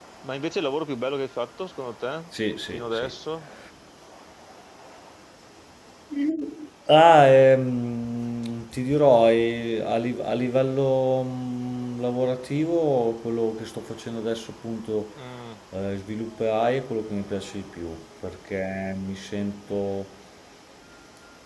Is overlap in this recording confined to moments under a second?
Yes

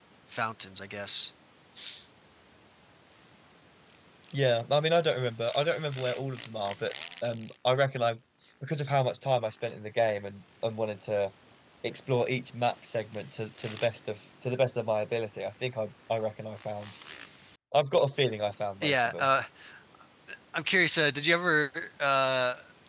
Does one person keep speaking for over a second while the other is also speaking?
No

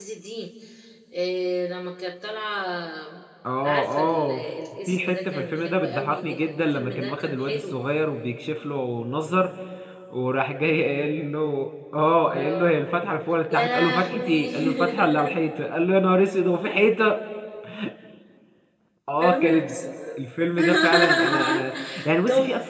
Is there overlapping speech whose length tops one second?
Yes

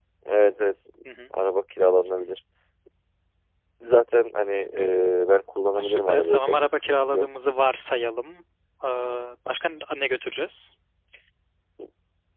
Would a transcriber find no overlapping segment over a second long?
No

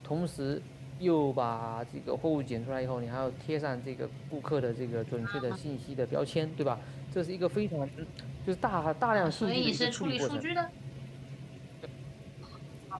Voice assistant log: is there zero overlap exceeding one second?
No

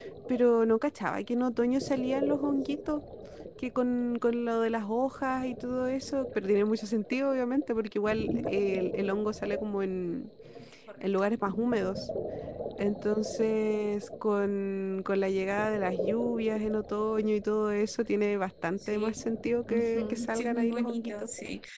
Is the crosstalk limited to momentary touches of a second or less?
No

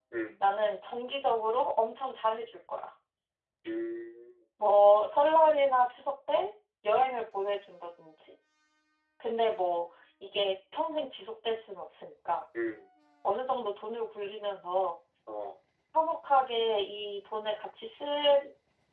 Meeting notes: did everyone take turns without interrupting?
Yes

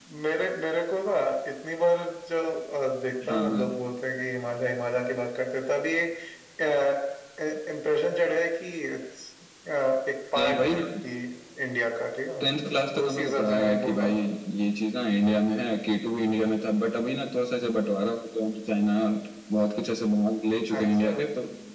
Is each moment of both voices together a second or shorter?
No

